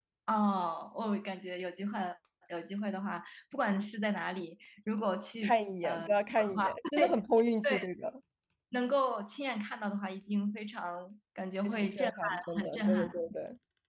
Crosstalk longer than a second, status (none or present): present